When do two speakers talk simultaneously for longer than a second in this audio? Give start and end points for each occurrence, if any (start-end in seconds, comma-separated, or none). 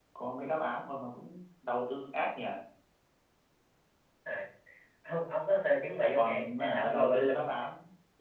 6.0-7.3